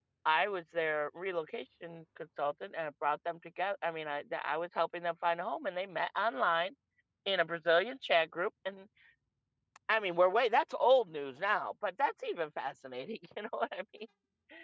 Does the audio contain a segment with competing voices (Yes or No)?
No